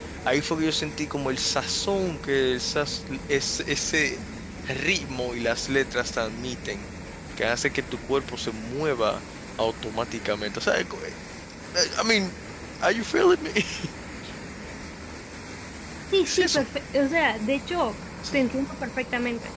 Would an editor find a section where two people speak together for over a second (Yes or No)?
No